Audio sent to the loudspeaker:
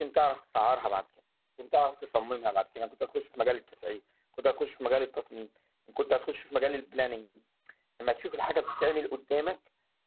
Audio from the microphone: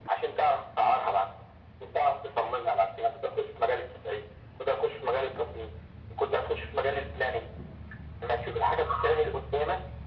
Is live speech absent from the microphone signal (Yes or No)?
Yes